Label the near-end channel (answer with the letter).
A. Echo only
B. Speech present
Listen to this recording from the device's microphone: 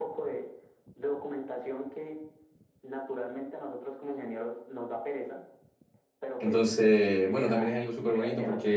B